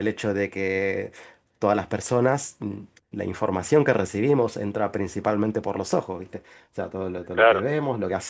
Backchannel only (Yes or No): Yes